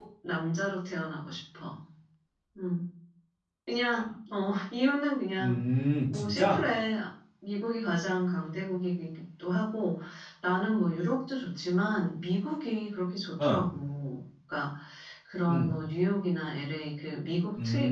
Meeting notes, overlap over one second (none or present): none